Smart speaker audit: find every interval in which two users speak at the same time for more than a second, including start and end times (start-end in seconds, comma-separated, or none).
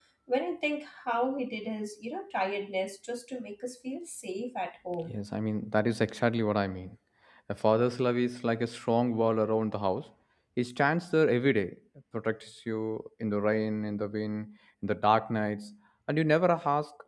none